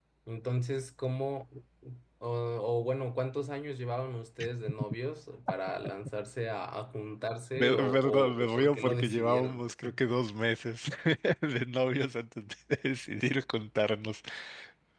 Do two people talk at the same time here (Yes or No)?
Yes